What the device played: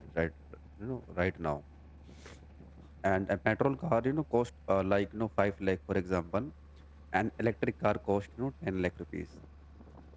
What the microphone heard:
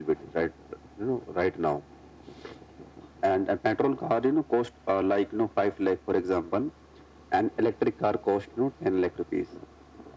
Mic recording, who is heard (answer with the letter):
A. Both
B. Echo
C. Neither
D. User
B